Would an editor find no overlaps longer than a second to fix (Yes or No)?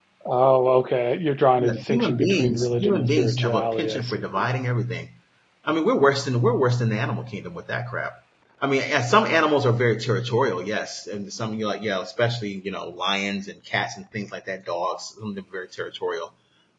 No